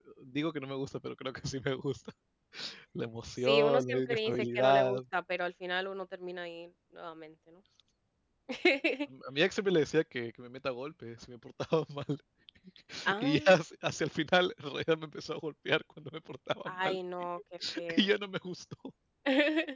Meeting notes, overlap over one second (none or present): present